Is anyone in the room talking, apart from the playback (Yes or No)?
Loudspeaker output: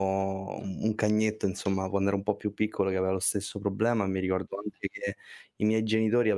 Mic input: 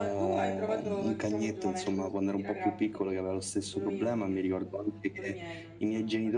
Yes